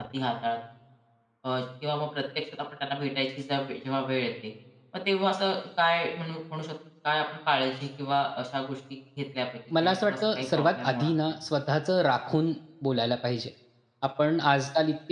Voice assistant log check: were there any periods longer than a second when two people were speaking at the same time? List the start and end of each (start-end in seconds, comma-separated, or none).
9.8-11.1